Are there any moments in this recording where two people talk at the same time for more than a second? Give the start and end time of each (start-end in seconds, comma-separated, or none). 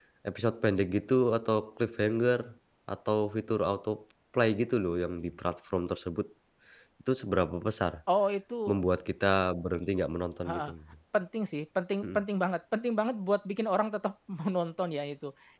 none